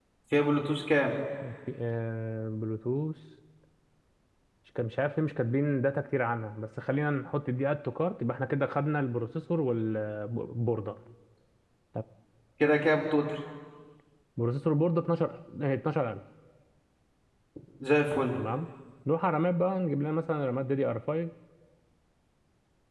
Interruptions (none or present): none